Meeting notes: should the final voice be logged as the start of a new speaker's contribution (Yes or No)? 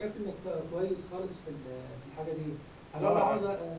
No